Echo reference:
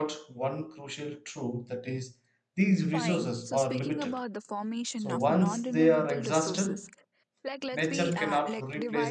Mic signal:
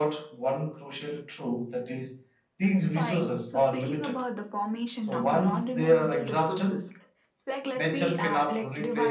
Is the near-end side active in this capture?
No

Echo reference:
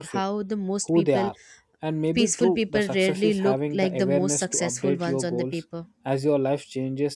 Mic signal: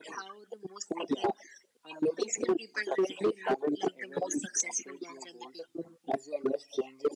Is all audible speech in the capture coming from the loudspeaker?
Yes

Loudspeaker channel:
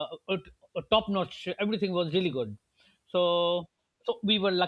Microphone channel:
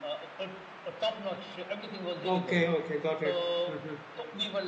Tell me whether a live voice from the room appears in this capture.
Yes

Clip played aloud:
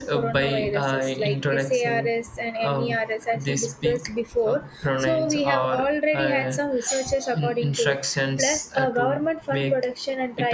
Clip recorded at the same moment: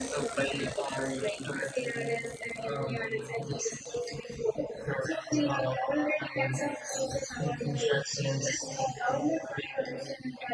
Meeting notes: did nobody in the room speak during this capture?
Yes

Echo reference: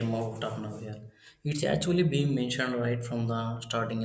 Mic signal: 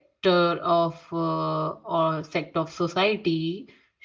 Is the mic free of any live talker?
No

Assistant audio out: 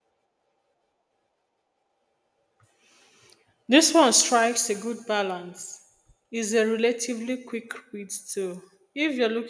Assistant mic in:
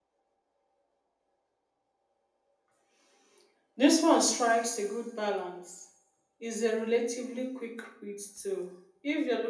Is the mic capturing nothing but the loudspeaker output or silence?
Yes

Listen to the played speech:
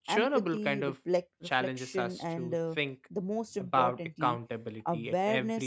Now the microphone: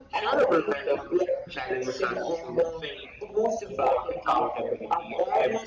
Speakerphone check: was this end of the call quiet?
Yes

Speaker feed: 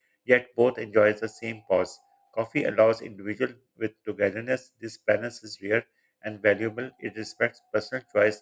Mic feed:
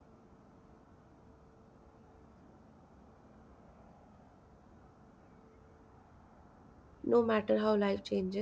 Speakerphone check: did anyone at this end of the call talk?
Yes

